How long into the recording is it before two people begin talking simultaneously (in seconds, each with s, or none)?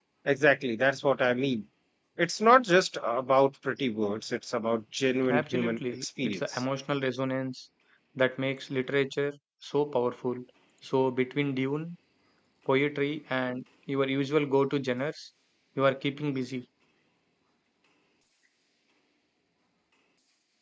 5.2 s